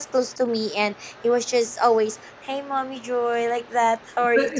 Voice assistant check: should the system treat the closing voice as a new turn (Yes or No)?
Yes